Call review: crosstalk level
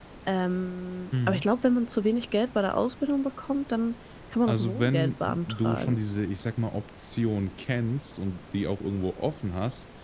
present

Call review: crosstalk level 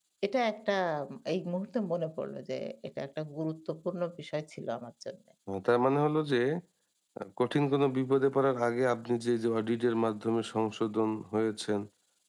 none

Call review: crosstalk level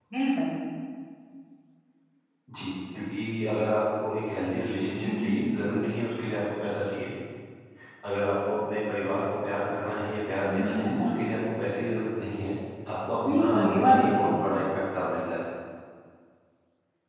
present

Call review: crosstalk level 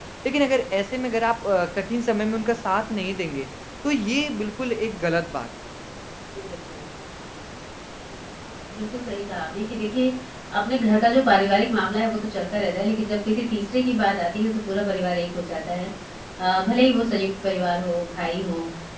none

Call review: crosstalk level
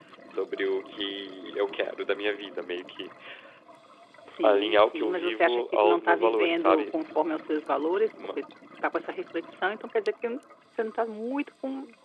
present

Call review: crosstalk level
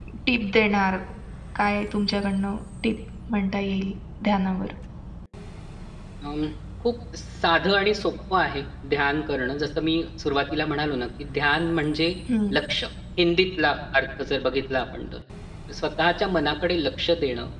none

